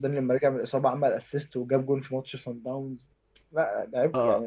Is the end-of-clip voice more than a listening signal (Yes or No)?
Yes